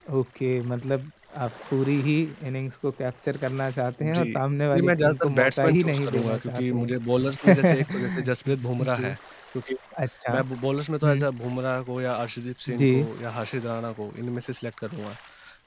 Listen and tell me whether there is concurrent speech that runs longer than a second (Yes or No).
Yes